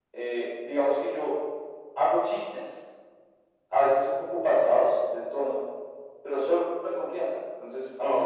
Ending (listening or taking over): listening